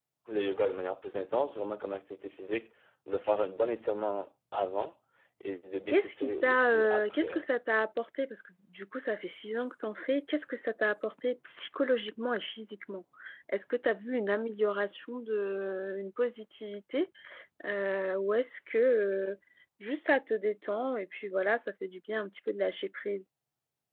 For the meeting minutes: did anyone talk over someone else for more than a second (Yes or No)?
Yes